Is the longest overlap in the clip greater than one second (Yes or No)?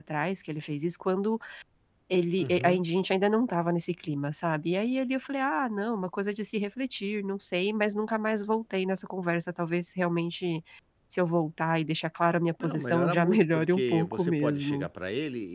Yes